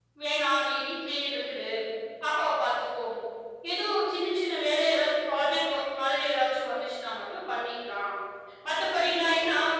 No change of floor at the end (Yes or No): Yes